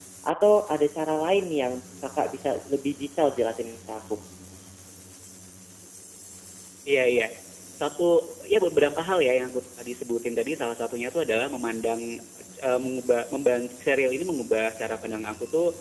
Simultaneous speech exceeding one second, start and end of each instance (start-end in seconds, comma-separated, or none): none